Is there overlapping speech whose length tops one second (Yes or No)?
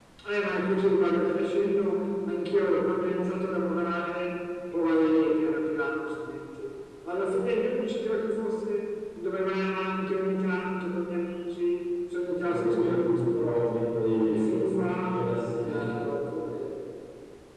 Yes